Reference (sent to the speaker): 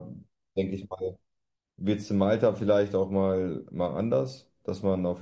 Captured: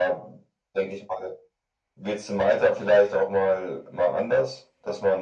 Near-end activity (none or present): none